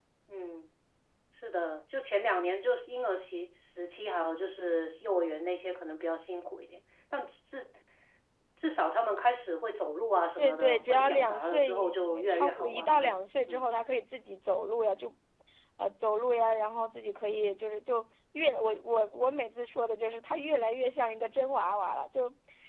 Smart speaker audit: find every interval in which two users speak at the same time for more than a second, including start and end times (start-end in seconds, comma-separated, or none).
10.4-13.8